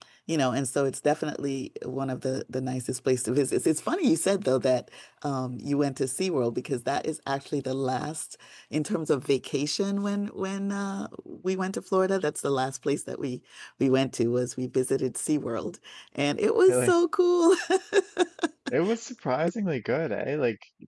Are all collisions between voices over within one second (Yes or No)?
Yes